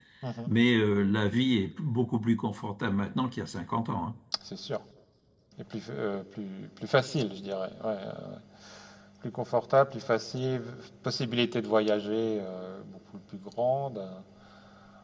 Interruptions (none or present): none